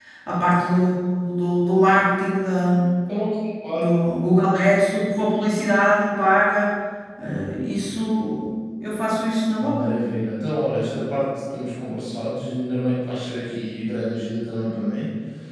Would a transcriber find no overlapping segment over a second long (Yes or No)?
Yes